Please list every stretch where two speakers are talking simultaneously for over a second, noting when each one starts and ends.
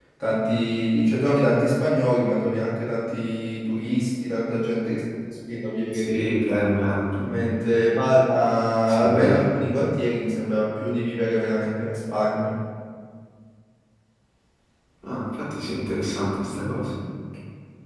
none

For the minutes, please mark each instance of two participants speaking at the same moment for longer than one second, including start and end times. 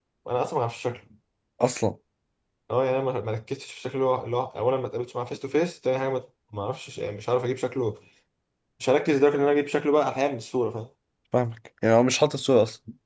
none

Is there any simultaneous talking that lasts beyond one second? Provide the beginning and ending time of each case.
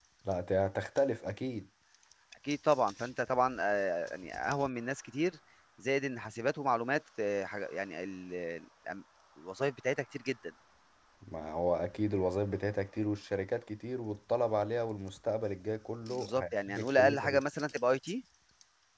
16.1-17.4

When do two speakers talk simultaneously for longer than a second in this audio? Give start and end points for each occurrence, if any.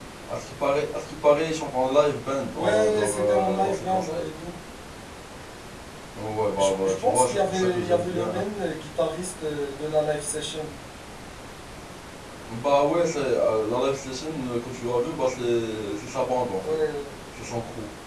2.5-4.2, 6.6-8.4

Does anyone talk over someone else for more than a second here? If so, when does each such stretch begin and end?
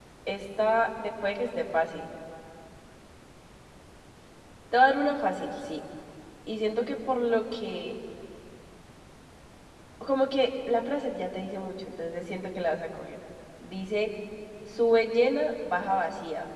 none

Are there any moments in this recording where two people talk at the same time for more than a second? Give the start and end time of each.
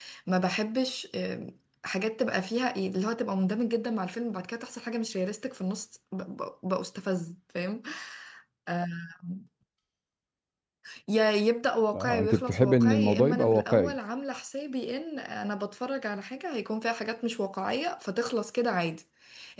12.0-13.9

